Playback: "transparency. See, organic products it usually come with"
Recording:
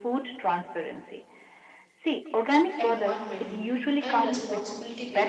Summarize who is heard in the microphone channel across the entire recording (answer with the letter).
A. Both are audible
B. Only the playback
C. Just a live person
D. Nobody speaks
A